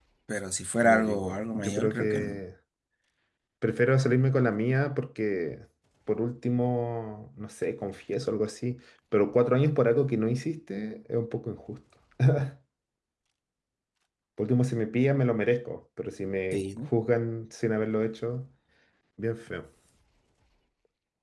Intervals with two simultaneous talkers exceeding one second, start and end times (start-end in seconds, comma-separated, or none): 0.8-2.4